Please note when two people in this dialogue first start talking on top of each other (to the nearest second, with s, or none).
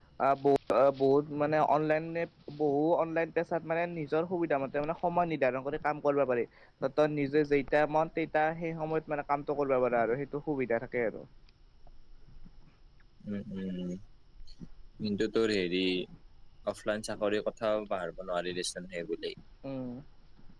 none